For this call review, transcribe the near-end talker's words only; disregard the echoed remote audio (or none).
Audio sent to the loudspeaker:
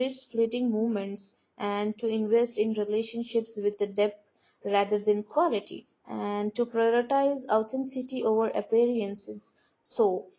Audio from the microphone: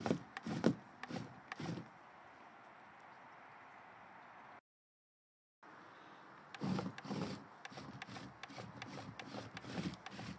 none